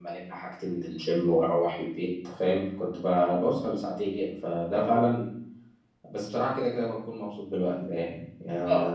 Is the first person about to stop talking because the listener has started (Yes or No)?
Yes